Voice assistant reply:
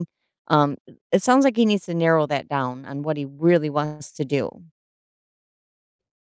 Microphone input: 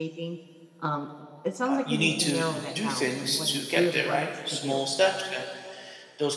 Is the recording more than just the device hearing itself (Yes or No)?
Yes